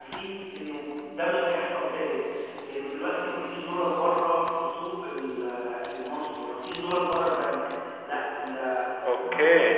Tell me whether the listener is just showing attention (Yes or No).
Yes